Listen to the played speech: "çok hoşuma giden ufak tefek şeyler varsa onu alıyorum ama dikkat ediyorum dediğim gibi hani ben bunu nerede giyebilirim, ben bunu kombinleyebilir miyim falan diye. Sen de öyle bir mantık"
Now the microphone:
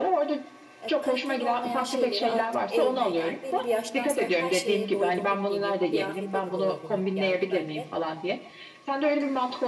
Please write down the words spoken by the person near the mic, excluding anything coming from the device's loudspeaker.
E, kaliteli olmayan şeyleri artık evime yani belli bir yaştan sonra her şeye doygunluk geliyor. Kıyafete de doygunluk geldi bende.

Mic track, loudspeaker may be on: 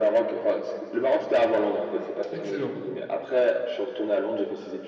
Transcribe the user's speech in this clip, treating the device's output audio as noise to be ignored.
Excellent.

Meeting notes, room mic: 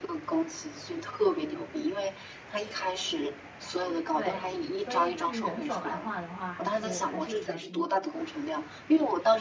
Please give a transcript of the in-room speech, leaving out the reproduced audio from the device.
对，所以对于人手来画的话，还是还是比较辛苦的。

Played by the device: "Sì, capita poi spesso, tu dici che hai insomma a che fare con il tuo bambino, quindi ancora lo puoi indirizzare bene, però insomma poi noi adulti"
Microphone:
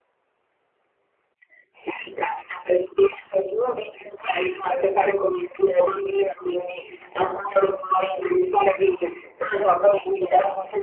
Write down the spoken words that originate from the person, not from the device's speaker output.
none

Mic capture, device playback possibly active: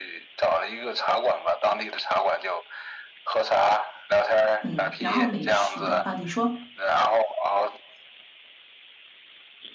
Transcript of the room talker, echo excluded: 嗯，然后美食的啊，你说。

